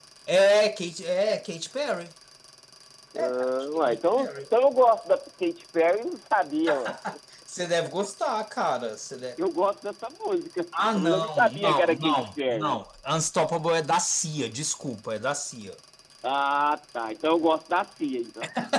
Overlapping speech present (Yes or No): Yes